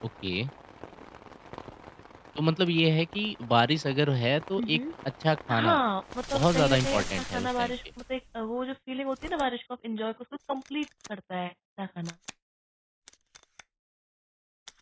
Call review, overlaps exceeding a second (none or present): present